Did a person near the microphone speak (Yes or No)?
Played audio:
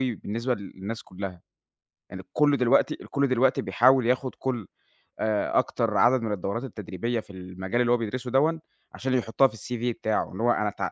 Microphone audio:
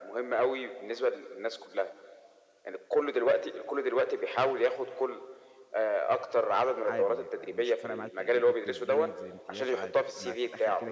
Yes